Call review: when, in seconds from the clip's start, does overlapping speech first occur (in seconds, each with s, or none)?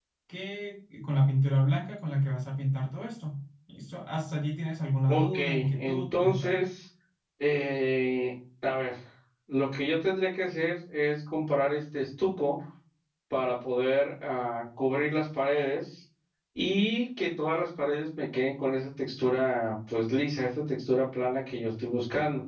5.1 s